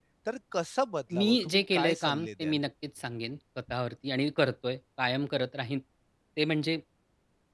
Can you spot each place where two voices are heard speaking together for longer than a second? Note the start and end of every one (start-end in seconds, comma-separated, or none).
1.2-2.6